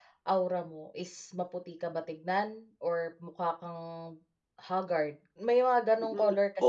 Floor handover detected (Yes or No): Yes